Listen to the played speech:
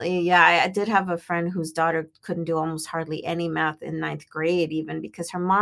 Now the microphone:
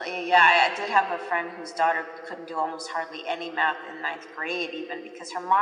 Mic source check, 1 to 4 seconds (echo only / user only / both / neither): echo only